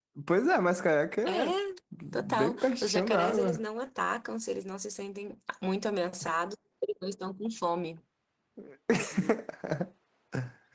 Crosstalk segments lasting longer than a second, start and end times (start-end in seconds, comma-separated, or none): 2.1-3.6